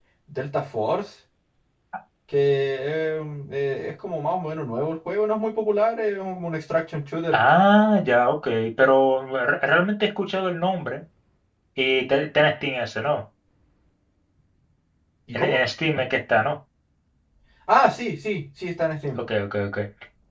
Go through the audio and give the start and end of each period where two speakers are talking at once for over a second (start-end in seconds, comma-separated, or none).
none